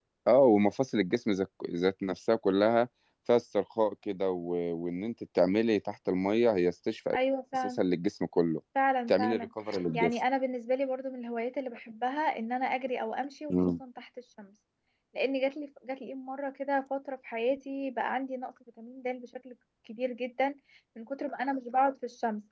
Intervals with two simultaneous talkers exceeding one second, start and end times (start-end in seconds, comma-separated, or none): none